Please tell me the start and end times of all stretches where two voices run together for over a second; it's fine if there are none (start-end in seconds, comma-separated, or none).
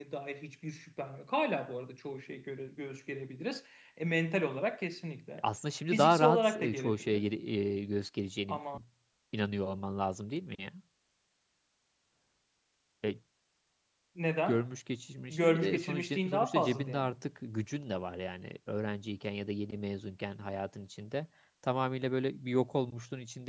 5.9-7.2, 15.3-17.1